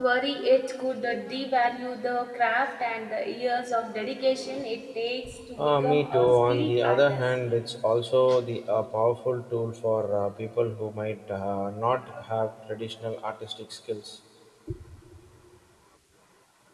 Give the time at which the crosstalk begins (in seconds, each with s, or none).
5.6 s